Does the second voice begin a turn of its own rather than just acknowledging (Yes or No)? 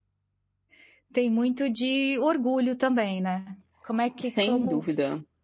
Yes